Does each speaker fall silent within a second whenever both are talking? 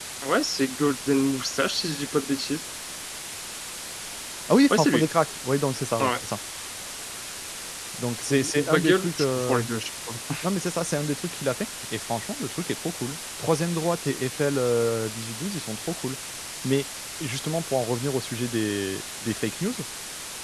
No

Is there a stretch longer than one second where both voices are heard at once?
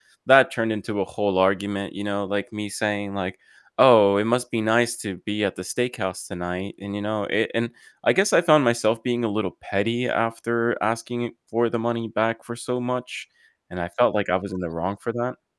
No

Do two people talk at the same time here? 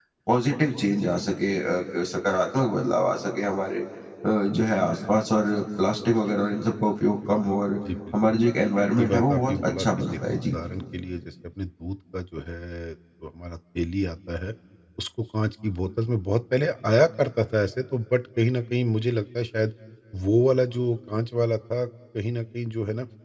Yes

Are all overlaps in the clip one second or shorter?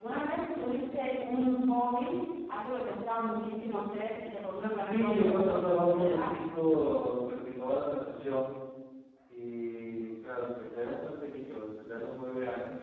No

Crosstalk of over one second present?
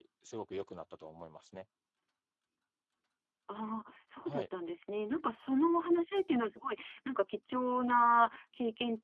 No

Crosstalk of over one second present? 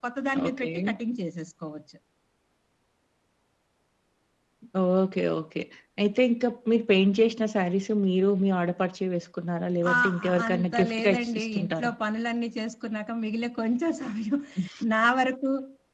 Yes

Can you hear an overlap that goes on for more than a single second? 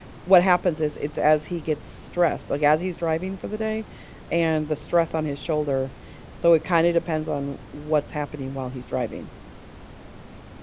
No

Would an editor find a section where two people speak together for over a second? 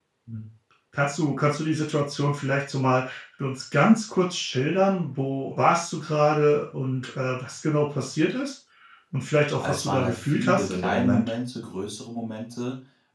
Yes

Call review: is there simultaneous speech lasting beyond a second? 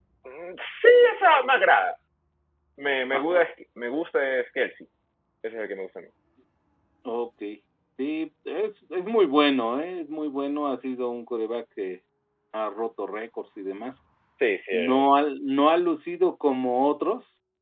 No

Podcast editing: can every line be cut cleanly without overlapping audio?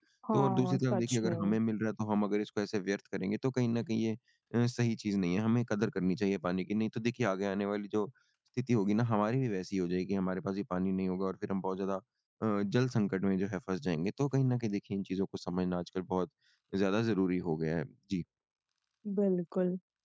No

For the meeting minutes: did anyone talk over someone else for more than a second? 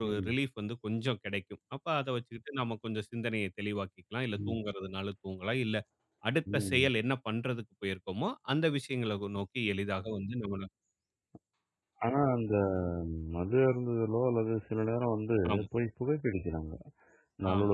No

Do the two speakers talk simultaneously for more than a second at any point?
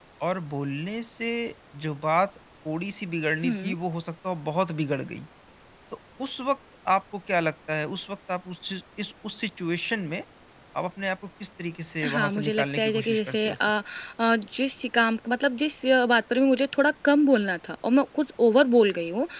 Yes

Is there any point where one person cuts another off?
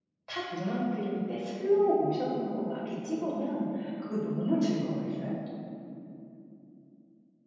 No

